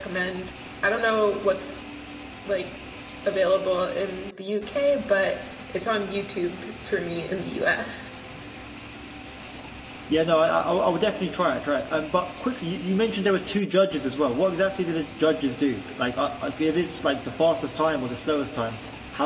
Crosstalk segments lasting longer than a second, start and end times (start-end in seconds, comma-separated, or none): none